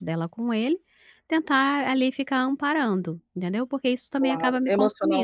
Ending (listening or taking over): taking over